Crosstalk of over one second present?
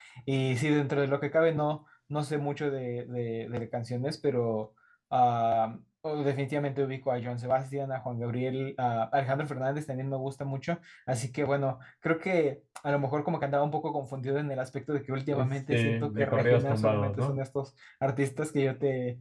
Yes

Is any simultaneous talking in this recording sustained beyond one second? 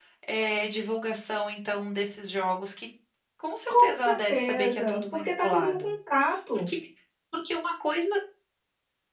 Yes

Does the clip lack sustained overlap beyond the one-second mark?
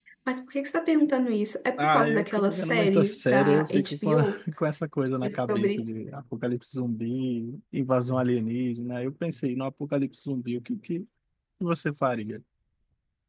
No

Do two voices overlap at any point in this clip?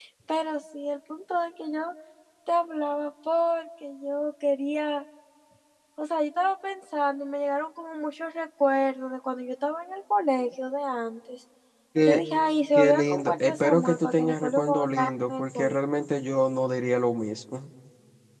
Yes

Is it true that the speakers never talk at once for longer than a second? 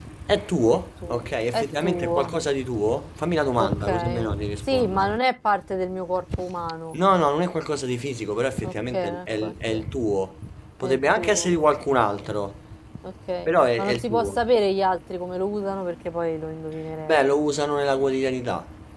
No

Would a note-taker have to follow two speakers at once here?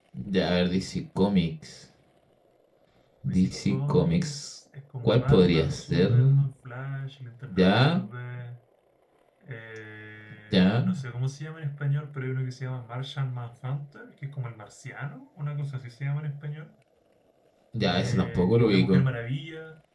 Yes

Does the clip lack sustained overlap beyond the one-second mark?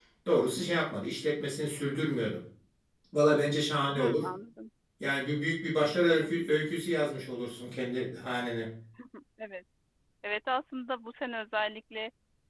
Yes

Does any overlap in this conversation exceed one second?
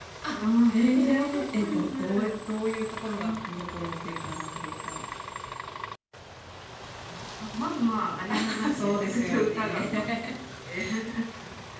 Yes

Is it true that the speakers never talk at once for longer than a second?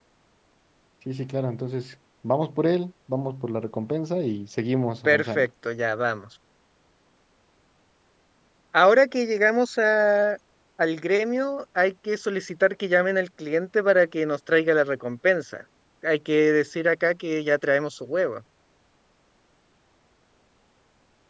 Yes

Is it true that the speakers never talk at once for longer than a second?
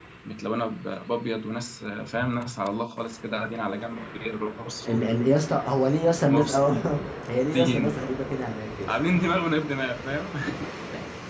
Yes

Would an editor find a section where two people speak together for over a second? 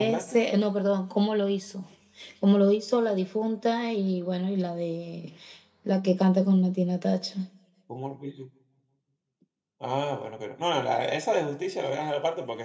No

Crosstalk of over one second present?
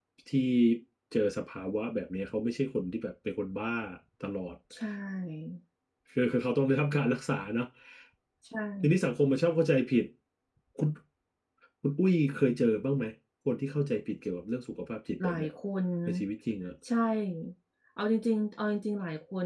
No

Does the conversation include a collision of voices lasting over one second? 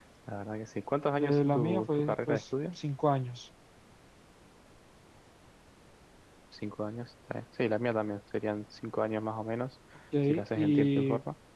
Yes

